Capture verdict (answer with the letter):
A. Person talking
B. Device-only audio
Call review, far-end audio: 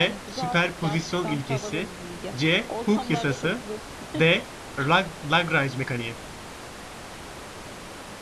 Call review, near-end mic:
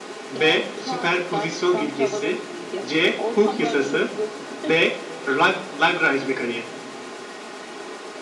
B